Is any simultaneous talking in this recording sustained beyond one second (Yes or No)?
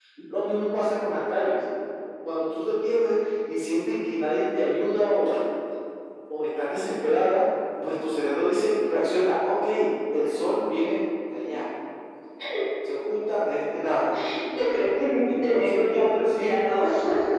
Yes